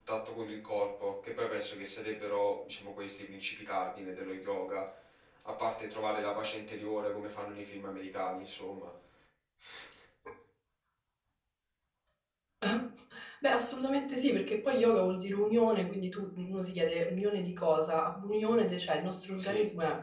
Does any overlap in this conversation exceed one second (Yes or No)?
No